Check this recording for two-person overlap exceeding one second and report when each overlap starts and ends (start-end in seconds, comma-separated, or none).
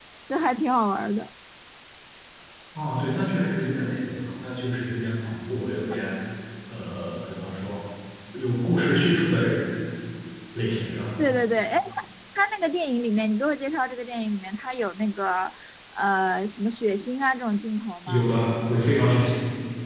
none